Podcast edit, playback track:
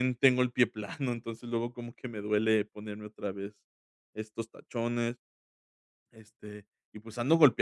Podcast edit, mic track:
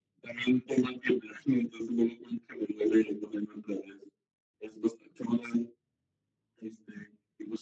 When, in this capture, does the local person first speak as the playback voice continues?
none

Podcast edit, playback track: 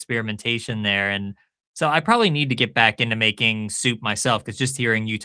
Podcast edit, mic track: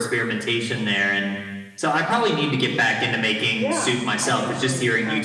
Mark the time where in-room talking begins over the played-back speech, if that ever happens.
3.5 s

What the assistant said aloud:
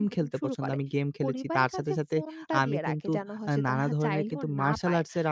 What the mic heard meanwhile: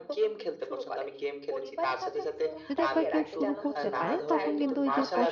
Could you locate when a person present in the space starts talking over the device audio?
2.7 s

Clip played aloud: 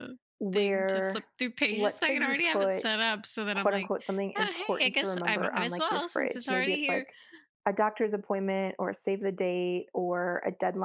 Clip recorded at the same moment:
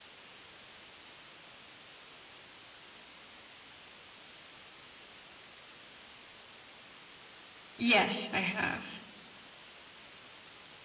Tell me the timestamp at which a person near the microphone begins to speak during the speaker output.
7.8 s

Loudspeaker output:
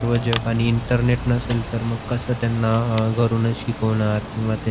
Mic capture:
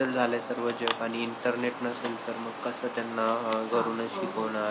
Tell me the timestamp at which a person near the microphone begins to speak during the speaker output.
3.7 s

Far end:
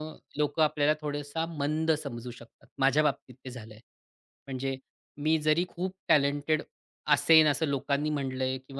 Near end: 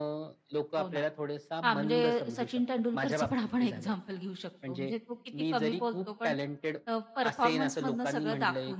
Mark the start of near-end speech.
0.8 s

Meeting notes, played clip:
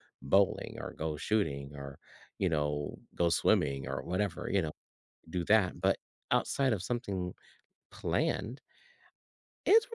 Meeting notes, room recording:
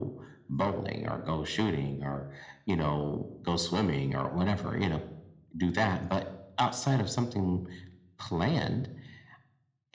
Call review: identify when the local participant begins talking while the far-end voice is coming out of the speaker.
none

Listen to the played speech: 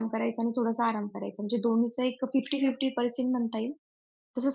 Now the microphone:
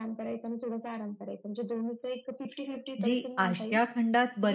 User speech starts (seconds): 3.0 s

